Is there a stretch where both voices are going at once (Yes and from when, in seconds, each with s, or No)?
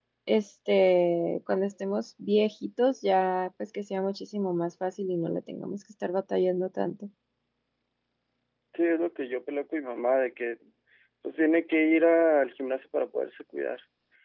No